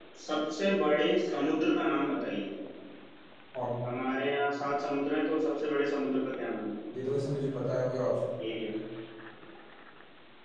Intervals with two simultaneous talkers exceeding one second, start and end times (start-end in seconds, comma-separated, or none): none